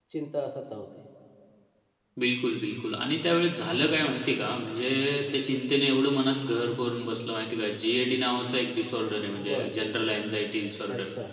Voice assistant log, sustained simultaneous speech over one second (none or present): none